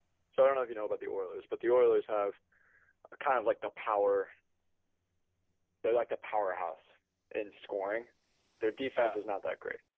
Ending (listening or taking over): listening